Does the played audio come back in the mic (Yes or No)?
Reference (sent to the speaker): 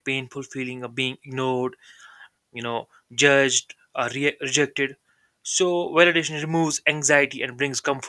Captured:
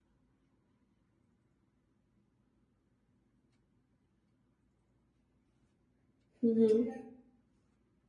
No